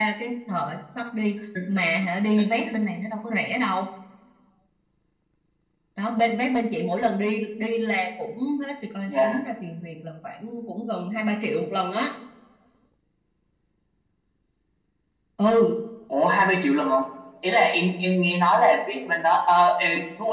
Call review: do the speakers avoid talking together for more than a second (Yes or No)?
Yes